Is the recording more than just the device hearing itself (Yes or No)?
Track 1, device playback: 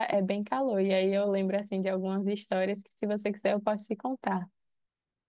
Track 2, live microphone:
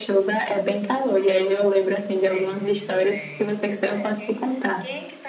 Yes